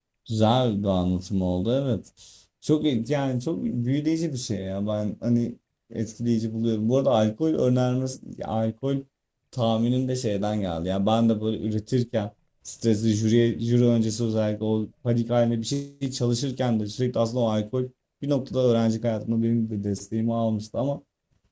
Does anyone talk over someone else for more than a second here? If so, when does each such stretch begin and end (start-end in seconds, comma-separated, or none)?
none